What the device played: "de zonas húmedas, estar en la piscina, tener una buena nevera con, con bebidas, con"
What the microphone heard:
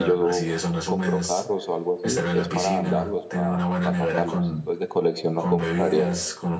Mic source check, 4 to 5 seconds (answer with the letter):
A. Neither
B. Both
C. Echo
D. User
B